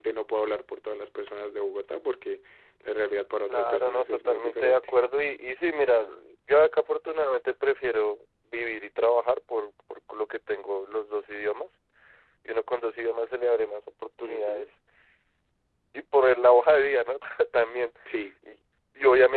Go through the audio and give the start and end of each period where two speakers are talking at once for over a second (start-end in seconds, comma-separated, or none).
3.5-4.9